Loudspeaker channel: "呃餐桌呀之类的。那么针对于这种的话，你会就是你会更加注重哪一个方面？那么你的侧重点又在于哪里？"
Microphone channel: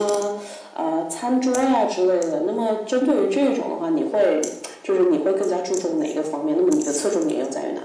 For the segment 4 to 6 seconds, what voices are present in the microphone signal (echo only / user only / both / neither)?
echo only